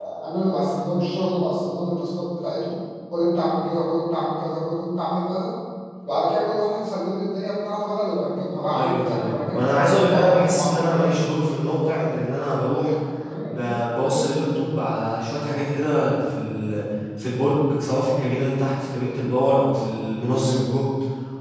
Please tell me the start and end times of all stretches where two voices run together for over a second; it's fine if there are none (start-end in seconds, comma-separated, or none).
8.7-11.2